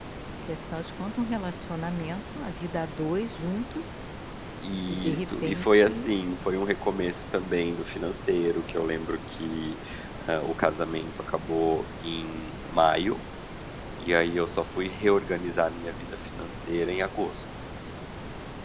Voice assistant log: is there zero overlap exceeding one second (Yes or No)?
No